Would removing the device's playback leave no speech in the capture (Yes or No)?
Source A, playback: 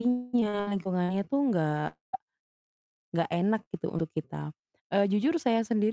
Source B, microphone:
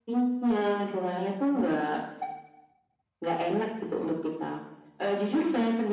Yes